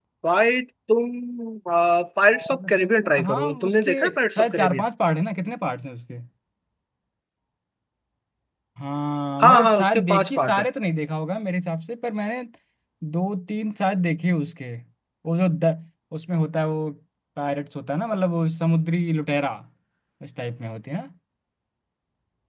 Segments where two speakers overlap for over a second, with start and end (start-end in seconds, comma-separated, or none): 2.3-4.0, 9.4-10.7